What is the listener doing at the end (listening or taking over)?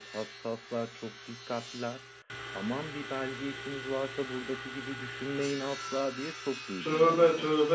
taking over